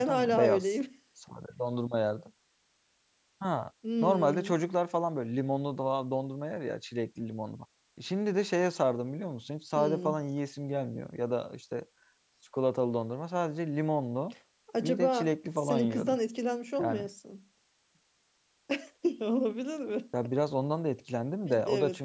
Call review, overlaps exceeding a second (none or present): present